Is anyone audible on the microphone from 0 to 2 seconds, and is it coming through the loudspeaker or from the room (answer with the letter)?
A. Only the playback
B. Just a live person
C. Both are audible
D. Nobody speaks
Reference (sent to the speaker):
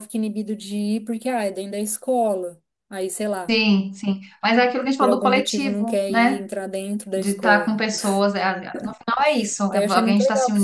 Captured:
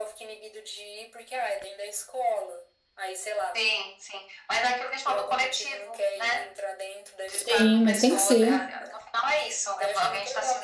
A